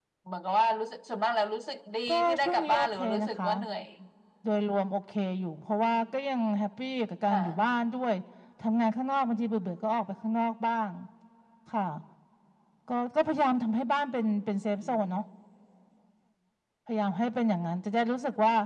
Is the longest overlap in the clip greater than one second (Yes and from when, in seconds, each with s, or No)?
Yes, from 2.1 s